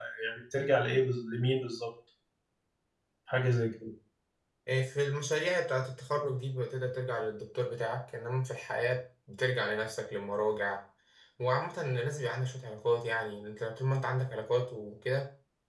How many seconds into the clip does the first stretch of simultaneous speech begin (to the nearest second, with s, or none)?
none